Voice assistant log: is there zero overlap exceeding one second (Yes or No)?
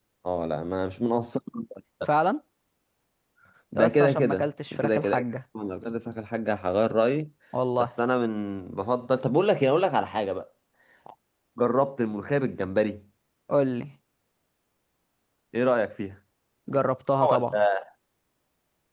No